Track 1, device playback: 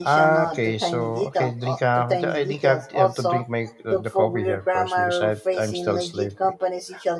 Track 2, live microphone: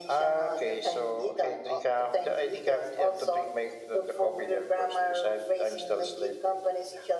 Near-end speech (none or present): none